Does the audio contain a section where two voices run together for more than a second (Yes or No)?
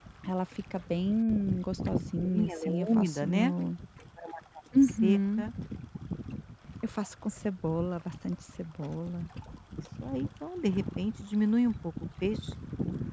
Yes